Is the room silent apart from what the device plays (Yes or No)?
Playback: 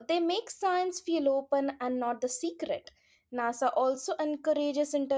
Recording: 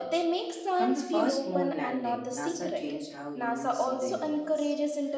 No